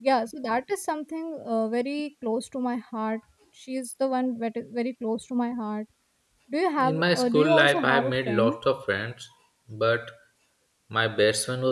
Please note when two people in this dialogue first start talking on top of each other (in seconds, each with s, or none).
6.8 s